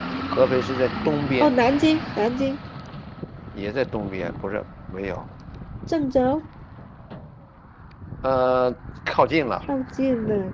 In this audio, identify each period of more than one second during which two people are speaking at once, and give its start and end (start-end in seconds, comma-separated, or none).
none